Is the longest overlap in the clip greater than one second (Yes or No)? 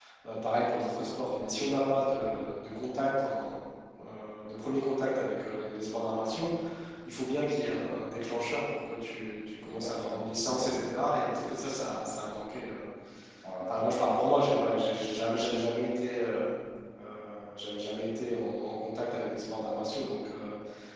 Yes